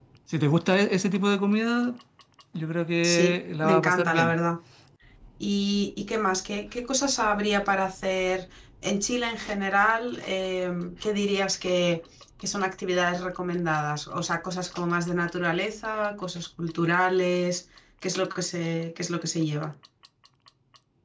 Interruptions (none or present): present